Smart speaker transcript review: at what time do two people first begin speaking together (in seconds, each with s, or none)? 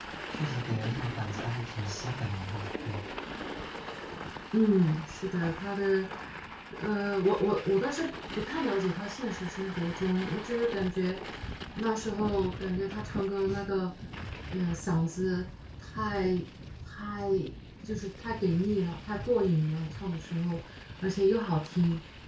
none